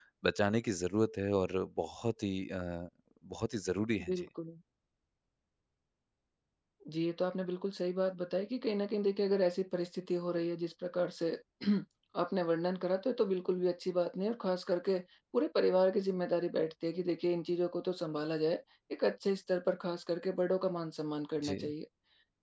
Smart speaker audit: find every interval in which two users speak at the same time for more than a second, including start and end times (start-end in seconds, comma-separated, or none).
none